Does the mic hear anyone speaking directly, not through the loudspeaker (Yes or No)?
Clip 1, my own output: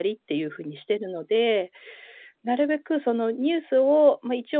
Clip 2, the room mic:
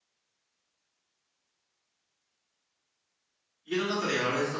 Yes